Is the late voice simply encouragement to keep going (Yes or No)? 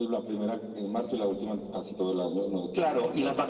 No